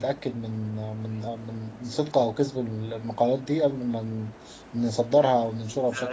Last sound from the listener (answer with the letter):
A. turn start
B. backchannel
A